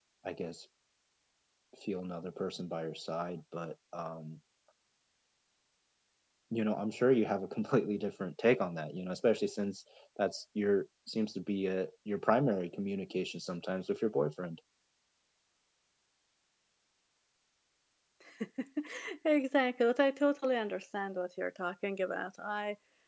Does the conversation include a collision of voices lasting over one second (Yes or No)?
No